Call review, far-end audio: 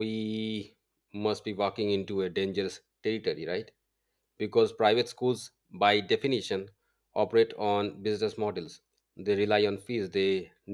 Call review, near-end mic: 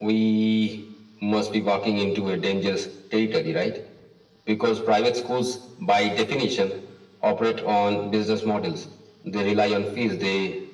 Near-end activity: none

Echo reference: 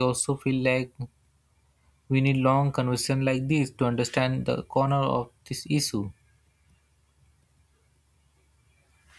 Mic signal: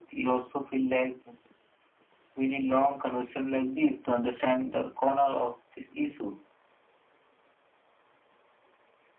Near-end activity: none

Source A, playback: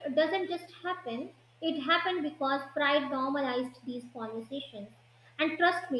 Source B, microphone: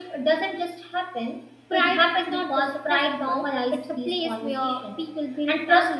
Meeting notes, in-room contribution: present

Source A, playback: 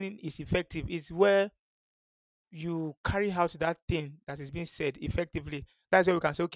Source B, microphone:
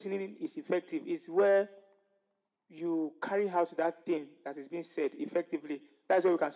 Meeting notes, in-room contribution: none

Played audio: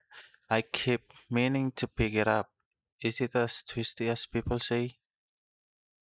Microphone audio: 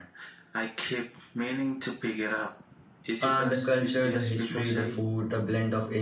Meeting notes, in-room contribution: present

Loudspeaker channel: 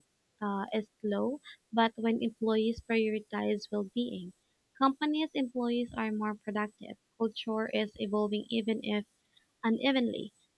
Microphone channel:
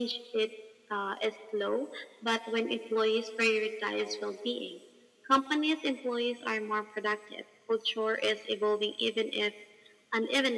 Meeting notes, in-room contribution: none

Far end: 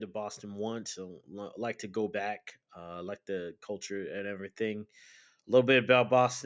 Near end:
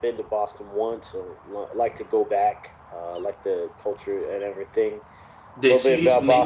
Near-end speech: present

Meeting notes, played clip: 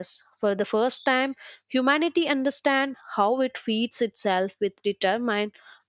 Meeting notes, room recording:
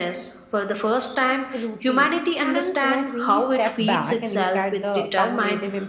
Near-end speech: present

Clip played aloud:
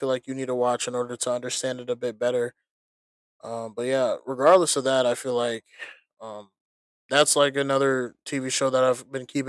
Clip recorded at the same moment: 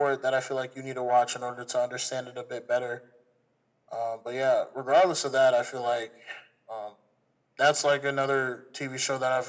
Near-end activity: none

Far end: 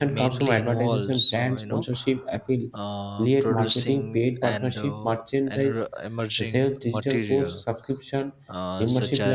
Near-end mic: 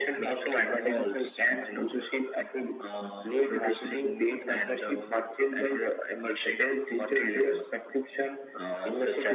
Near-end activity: none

